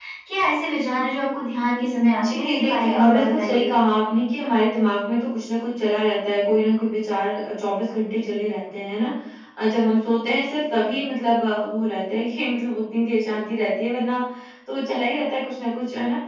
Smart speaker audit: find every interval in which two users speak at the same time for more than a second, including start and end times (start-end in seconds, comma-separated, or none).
2.3-3.6